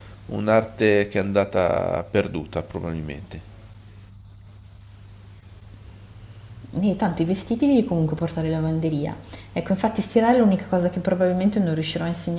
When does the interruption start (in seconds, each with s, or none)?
none